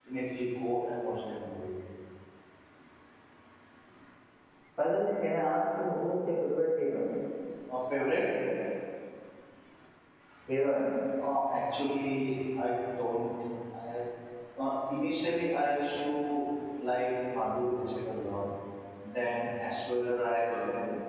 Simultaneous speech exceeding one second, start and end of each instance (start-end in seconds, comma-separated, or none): none